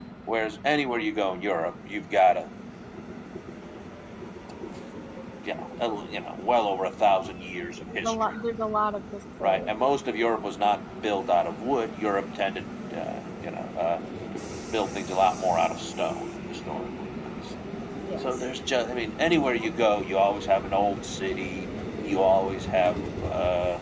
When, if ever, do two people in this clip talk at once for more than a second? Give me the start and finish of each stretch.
none

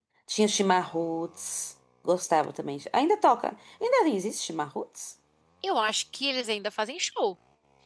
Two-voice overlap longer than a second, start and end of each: none

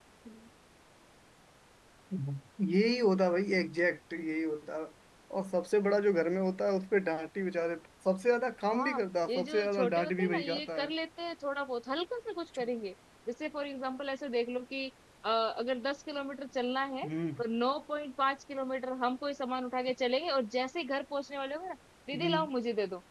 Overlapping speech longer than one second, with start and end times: 8.7-10.9

